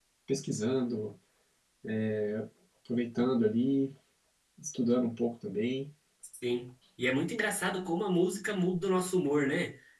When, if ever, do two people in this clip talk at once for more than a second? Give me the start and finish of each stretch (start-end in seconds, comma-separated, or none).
none